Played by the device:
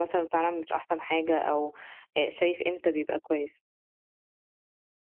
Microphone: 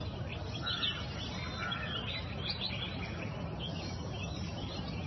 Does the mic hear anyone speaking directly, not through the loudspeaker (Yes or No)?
No